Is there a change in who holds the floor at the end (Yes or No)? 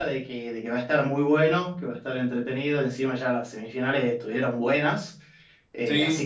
No